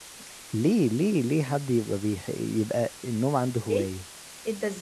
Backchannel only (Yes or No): No